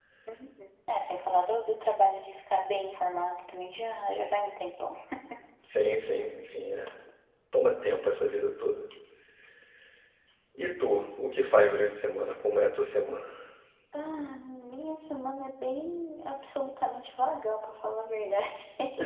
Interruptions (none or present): none